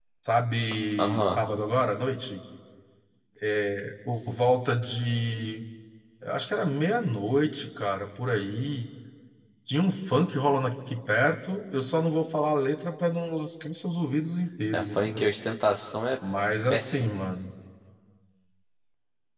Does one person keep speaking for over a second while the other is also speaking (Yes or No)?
No